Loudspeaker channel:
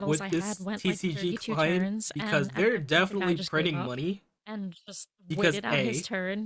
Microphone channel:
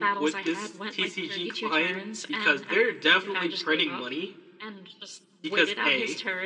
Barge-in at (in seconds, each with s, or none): none